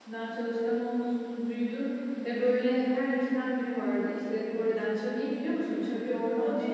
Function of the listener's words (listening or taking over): taking over